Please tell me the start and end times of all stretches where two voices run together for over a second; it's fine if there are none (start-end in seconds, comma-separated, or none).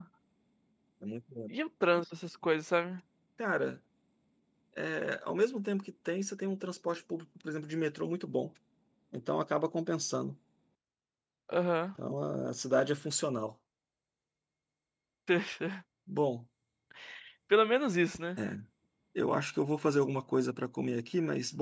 none